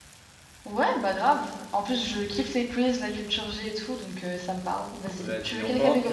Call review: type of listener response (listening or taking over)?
taking over